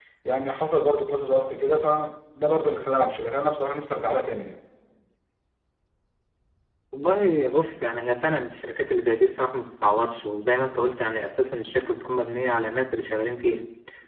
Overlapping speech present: No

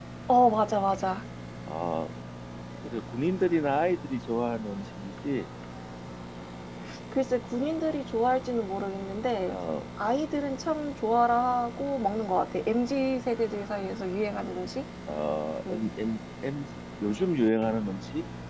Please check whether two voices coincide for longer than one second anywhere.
No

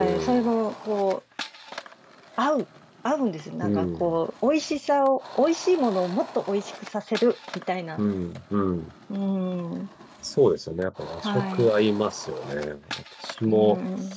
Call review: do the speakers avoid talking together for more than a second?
Yes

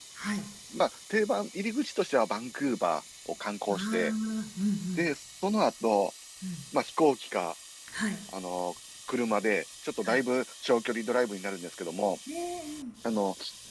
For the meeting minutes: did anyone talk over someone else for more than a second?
No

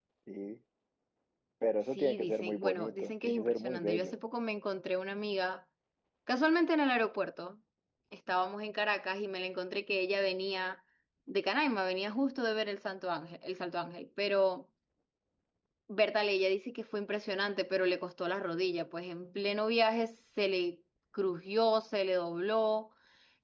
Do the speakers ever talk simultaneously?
Yes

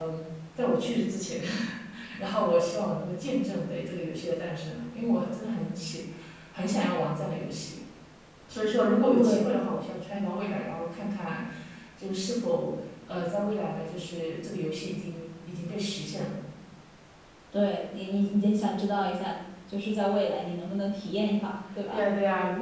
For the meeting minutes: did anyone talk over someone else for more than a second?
No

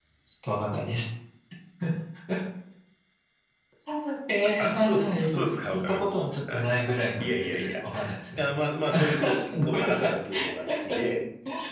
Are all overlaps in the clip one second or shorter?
No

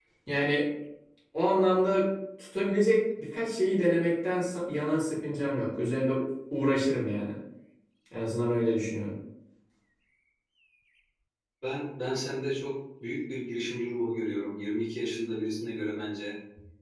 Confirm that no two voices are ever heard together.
Yes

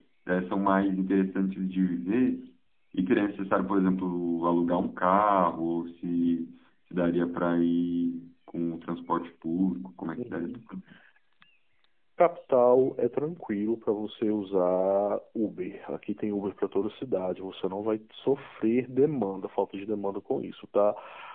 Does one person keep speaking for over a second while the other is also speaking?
No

